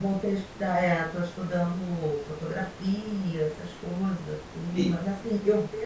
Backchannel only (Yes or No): Yes